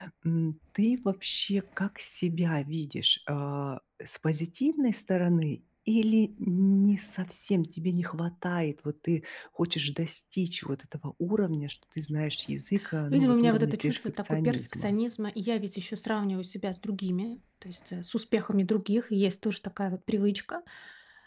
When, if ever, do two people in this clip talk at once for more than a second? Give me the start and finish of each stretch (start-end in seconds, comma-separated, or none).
13.1-15.0